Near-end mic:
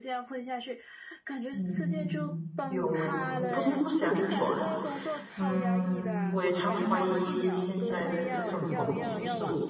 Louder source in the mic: user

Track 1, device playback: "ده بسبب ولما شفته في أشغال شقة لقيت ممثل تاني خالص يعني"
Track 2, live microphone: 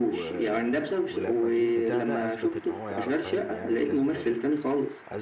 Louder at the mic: echo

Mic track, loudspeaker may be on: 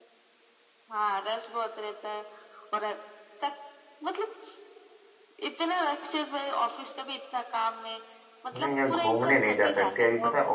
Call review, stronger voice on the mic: user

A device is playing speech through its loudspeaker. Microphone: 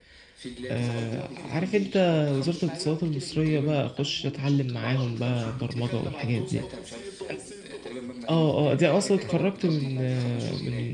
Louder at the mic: user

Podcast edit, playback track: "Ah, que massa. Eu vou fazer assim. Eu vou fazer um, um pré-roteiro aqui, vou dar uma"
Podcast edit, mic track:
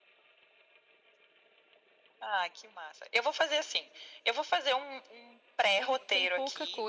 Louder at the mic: echo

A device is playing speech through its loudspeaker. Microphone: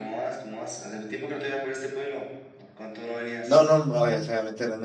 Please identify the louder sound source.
user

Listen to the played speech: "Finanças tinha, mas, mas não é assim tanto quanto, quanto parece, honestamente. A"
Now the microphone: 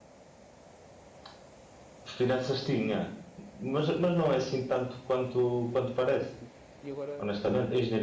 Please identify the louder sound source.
echo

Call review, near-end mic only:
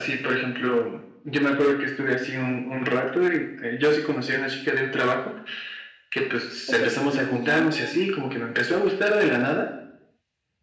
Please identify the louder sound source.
echo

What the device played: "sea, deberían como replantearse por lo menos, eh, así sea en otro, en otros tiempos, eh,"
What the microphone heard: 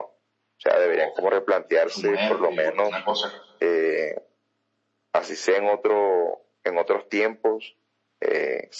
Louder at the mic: echo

